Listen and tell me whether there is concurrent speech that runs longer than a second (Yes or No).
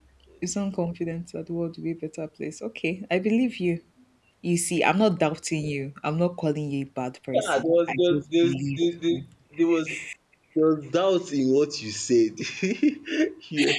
Yes